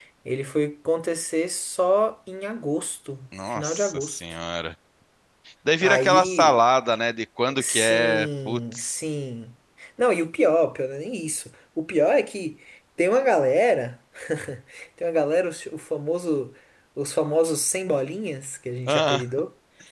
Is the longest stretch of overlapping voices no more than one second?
No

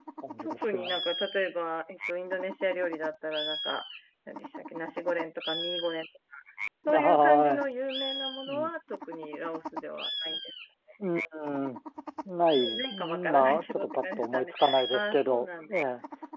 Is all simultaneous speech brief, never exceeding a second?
No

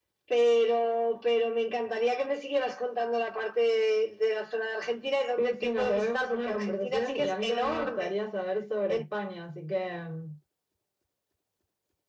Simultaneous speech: Yes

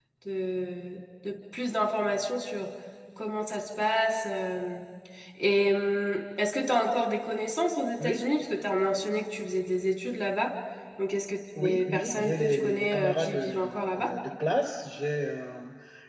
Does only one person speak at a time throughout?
No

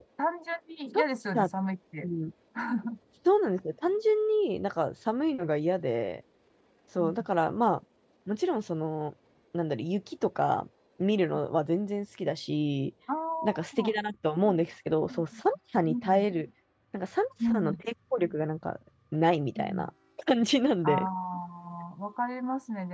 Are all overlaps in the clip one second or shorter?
Yes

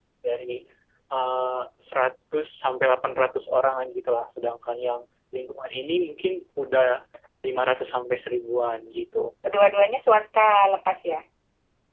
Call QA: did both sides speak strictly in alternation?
Yes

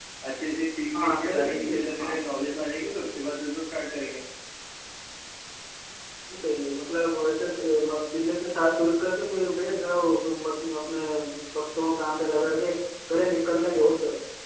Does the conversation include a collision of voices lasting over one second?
Yes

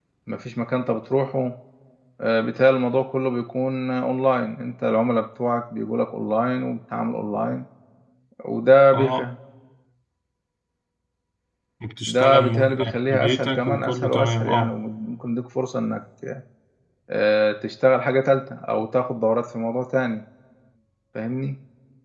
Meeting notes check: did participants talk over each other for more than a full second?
Yes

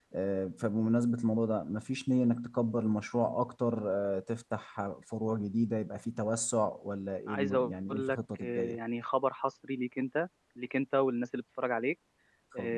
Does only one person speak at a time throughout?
No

